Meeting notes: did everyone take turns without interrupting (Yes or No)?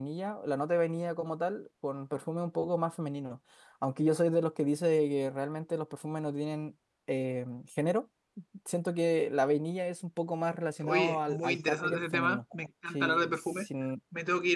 No